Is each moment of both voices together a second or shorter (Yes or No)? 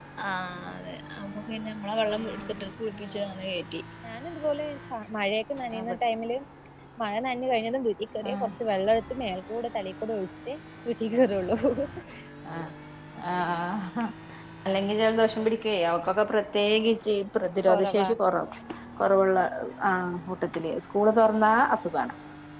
Yes